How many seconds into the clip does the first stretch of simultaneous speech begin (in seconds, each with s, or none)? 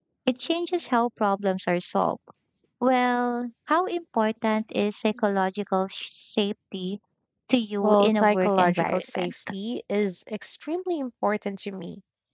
7.8 s